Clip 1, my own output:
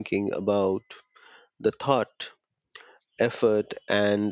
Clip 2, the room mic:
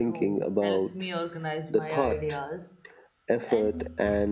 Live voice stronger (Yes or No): No